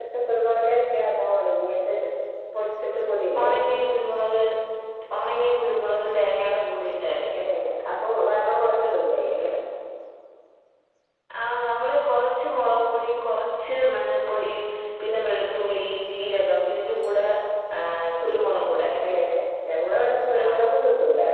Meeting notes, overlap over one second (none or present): none